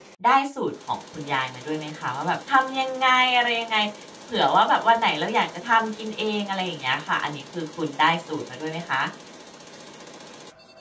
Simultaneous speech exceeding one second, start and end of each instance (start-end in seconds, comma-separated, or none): none